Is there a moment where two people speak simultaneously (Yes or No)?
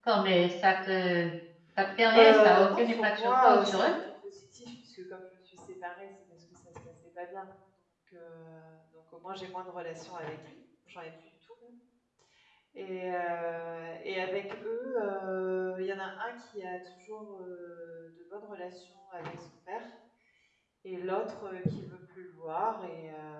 Yes